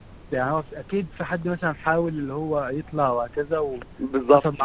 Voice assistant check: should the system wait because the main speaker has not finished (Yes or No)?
No